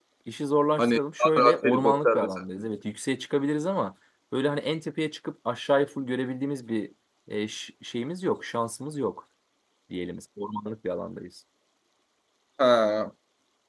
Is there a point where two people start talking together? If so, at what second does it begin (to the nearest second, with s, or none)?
1 s